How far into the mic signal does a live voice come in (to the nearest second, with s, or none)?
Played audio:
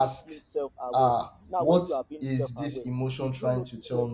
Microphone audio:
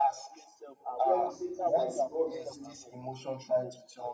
1 s